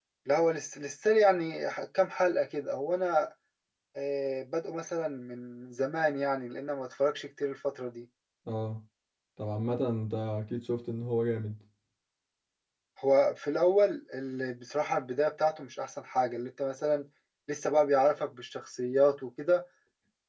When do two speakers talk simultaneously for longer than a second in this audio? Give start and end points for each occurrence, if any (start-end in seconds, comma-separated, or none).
none